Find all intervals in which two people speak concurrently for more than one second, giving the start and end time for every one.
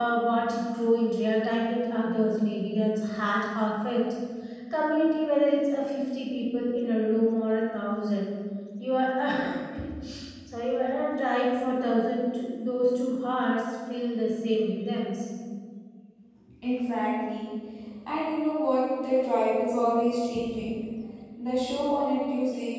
none

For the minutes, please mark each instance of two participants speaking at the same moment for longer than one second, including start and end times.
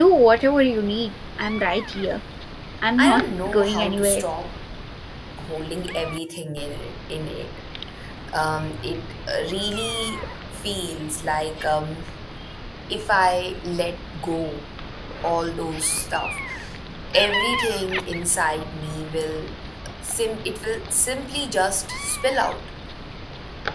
3.0-4.2

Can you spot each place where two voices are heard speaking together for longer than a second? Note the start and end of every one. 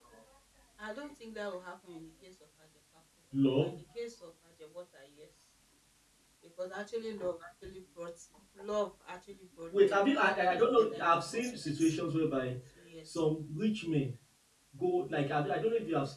10.6-12.0

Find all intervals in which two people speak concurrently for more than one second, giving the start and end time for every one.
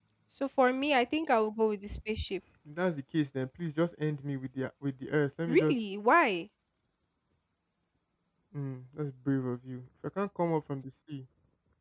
none

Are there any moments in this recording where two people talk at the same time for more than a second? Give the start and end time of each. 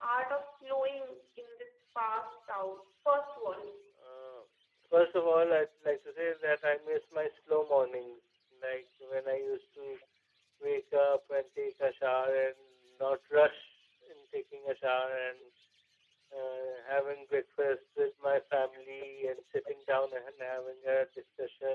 none

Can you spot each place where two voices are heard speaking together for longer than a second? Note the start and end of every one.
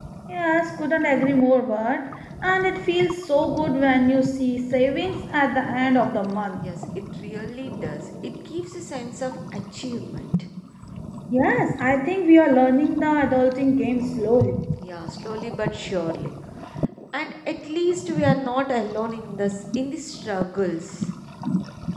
none

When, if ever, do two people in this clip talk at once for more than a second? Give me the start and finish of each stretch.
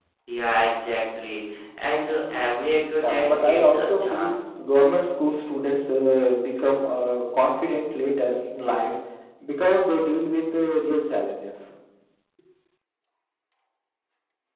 3.0-4.3

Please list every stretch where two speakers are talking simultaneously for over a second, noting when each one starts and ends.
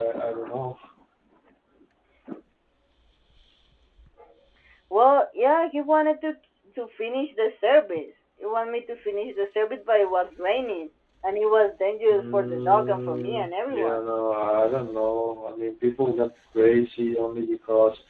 12.1-14.0

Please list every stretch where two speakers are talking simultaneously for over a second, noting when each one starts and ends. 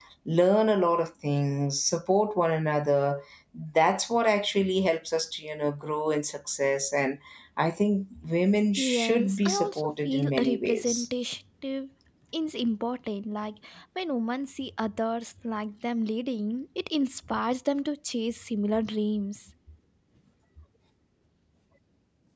8.8-11.1

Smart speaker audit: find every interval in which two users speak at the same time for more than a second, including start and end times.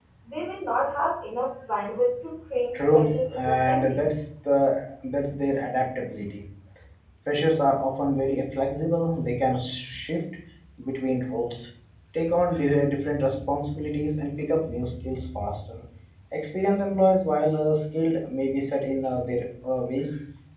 2.7-4.0

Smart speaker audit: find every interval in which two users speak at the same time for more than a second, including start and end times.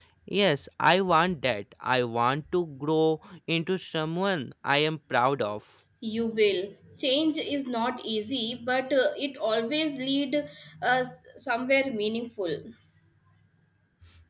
none

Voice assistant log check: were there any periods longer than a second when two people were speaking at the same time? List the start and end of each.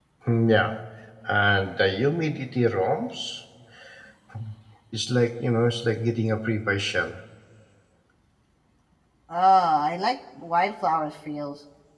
none

